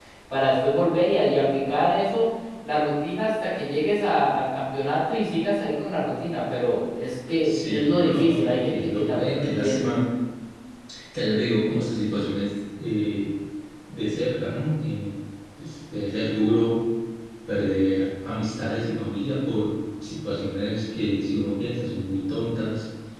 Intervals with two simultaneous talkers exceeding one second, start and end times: 7.4-9.9

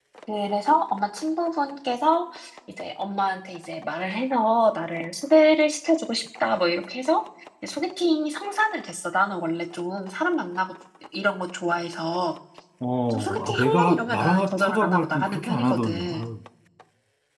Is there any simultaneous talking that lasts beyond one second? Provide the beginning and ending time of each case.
13.1-16.3

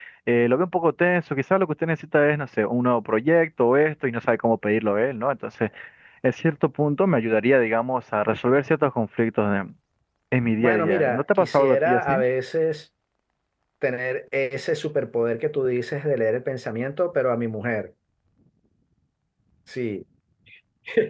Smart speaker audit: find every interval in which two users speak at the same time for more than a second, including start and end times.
10.6-12.2

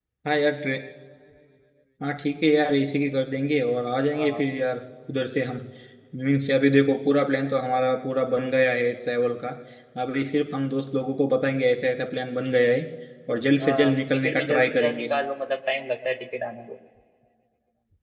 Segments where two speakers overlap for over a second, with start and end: 13.6-15.0

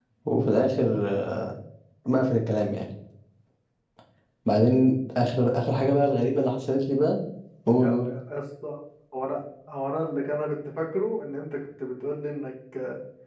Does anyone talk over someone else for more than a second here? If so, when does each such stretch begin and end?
none

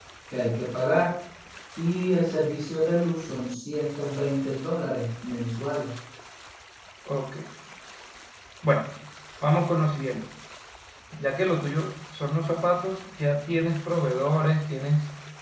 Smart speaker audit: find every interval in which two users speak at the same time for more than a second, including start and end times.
none

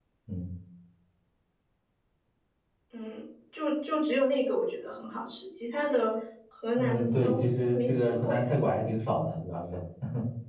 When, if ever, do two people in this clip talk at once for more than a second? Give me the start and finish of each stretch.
6.8-8.4

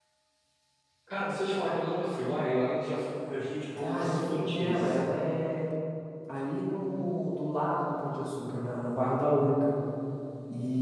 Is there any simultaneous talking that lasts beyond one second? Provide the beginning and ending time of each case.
3.8-5.0

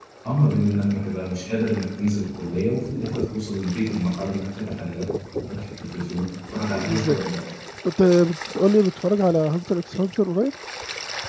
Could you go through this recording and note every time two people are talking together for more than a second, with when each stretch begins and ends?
none

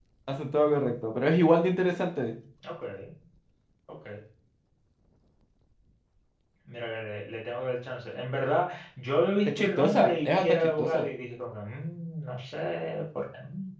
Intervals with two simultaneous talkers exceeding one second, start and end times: 9.5-11.1

